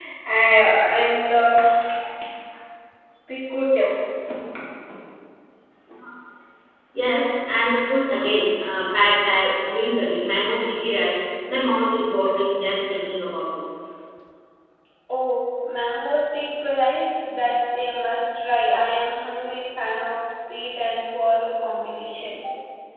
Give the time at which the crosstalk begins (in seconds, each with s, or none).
none